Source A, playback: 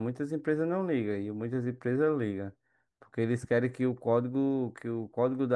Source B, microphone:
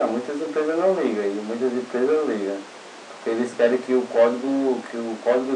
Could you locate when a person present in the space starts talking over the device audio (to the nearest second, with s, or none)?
none